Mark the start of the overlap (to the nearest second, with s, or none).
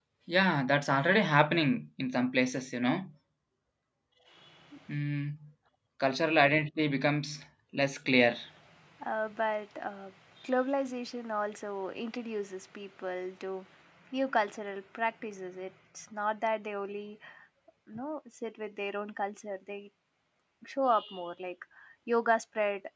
none